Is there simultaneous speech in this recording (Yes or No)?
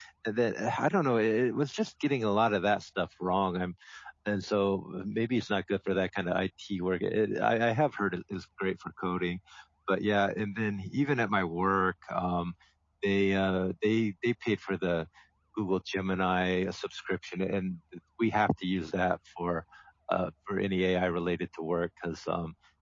No